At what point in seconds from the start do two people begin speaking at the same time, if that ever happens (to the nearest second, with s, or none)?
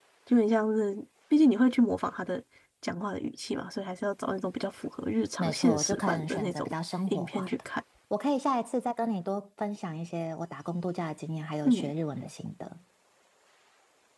5 s